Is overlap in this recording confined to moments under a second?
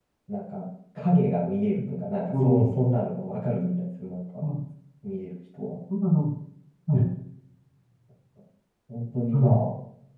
Yes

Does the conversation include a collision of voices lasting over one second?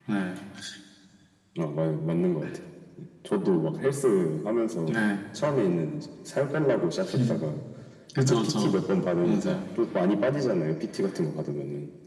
No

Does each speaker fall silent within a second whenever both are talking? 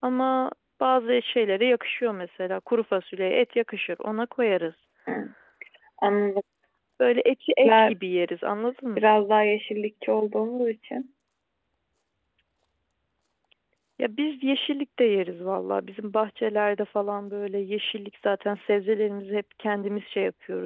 Yes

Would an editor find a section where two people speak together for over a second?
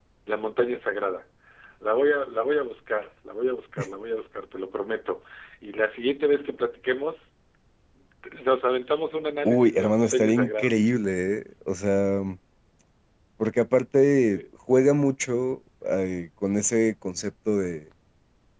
Yes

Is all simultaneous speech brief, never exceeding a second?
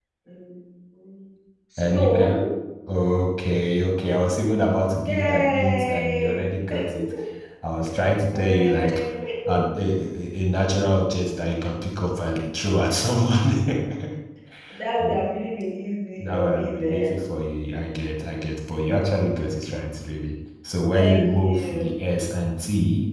No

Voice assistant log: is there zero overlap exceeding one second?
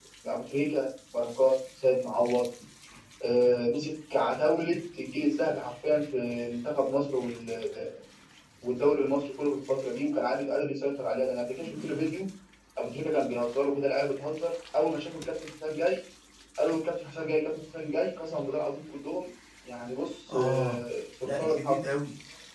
Yes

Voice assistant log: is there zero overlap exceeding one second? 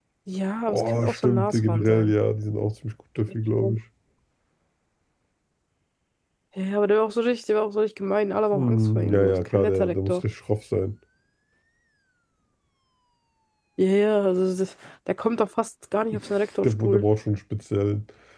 No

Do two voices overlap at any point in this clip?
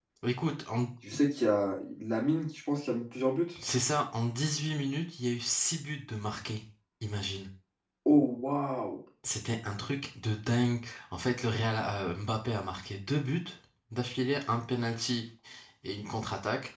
No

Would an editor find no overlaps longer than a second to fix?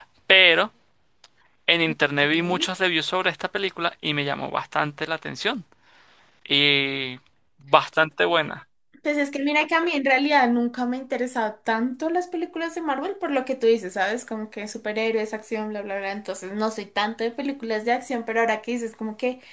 Yes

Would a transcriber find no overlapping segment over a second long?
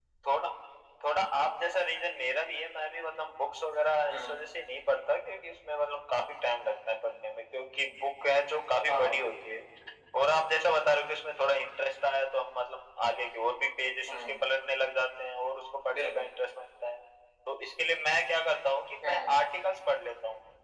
Yes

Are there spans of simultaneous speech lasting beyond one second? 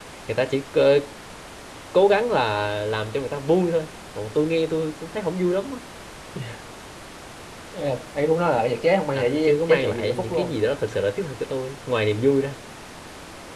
Yes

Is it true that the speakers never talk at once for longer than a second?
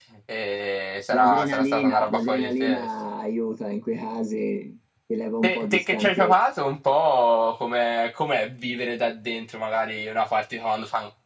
No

